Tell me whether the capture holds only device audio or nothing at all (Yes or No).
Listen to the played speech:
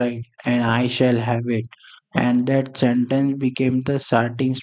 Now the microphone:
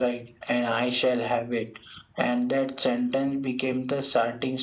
Yes